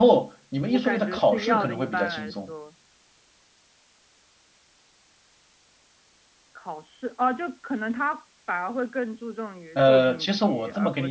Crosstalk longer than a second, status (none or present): present